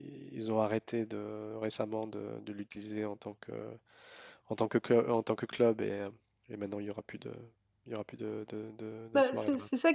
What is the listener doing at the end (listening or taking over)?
taking over